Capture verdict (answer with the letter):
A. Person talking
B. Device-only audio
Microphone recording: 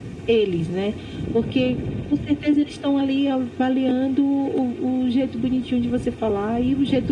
B